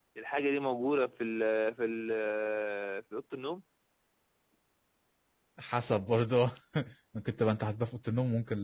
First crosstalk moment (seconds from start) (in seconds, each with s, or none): none